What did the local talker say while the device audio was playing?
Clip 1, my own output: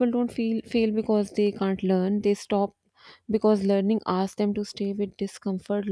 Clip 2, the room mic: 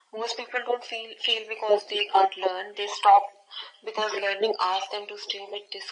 none

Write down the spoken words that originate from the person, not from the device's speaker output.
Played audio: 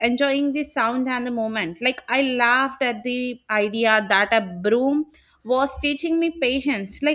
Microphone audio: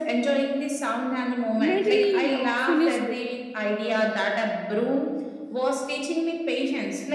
mentally uh, finished with it.

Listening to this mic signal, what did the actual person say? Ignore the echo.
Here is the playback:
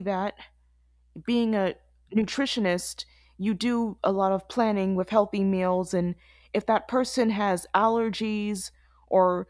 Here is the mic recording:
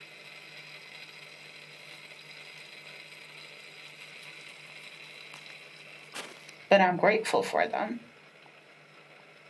but I'm grateful for them

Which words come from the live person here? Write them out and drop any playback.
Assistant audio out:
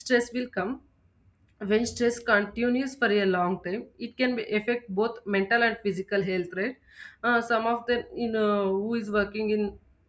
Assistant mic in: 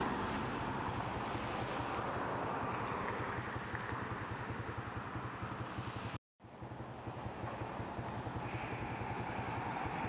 none

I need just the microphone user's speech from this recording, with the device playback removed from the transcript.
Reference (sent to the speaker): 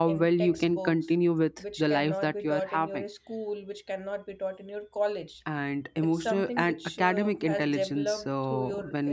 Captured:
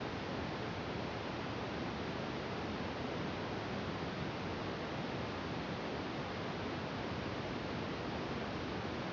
none

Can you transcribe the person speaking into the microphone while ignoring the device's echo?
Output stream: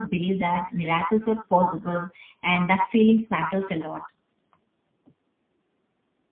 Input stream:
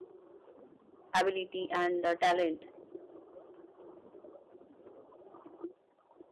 ability and uh, talent.

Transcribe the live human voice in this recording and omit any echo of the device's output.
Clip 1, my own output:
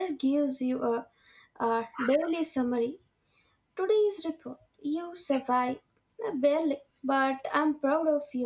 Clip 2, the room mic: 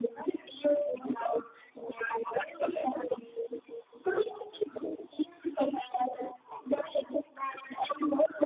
none

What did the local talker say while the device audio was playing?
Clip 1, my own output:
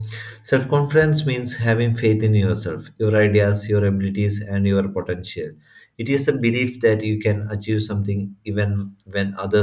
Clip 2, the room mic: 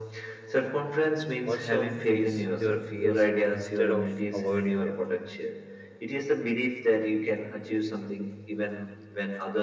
Also, face your fears instead of avoiding them.

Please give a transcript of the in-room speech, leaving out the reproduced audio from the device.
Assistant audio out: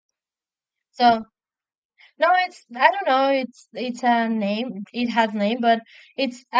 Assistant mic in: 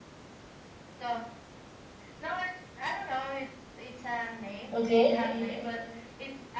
Okay.

